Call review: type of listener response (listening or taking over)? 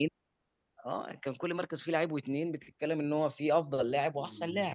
taking over